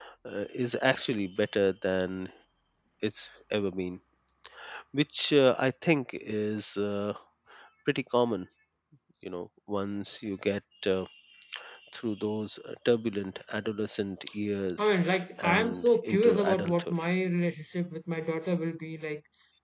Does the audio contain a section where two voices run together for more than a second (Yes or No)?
Yes